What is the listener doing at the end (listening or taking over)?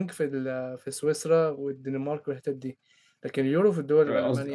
taking over